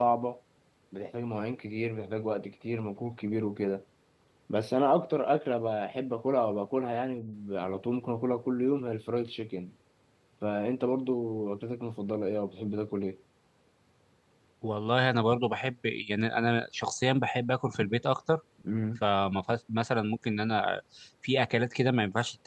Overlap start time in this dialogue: none

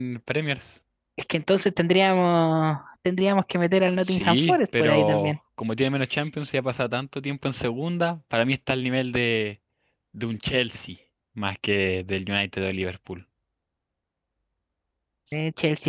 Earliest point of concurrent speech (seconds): 4 s

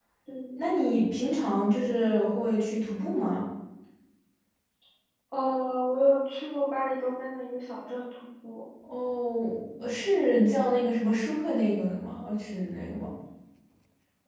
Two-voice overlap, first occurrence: none

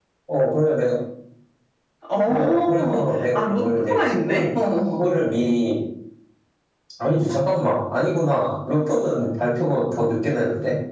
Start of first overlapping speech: 2 s

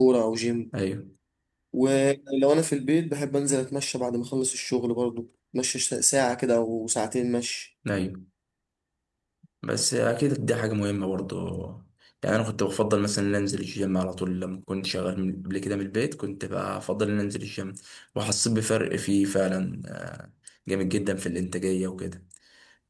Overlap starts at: none

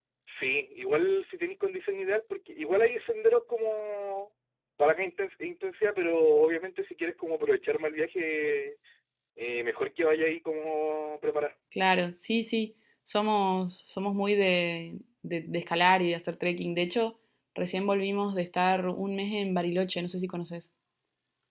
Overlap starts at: none

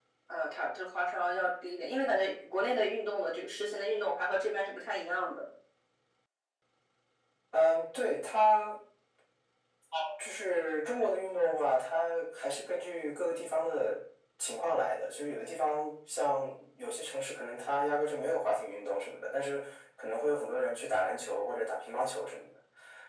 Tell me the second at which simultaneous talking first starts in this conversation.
none

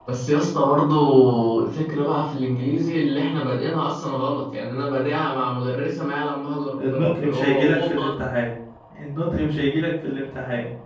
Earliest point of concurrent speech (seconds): 7 s

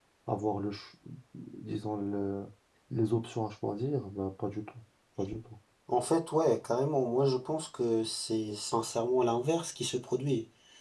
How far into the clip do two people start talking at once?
none

